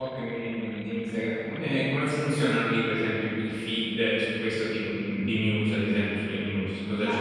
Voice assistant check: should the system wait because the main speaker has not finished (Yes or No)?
No